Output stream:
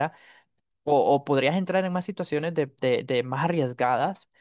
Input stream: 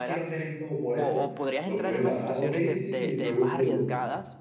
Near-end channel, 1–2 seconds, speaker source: both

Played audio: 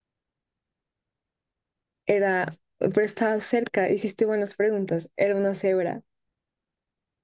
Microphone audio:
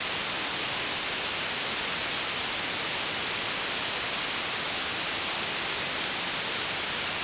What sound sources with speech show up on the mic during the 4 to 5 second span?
neither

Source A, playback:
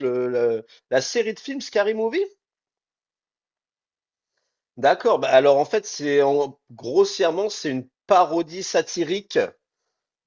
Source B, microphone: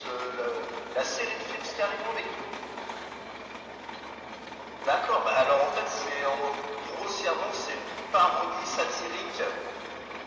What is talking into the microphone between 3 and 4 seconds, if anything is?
neither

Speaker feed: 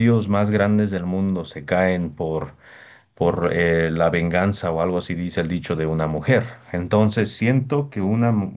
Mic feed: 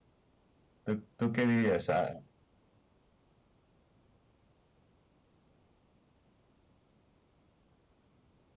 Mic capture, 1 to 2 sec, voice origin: user only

